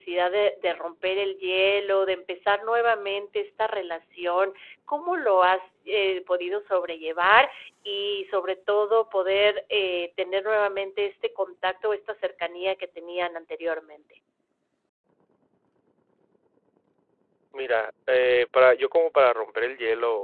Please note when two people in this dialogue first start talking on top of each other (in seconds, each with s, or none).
none